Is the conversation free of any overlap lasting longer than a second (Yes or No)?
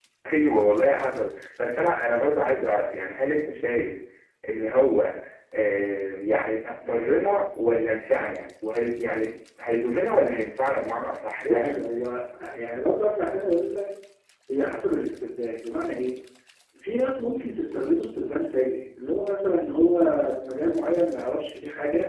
Yes